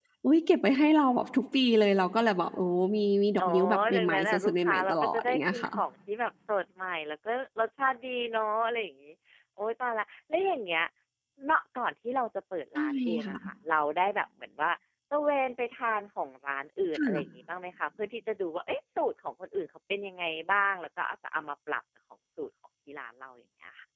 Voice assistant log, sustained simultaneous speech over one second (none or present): present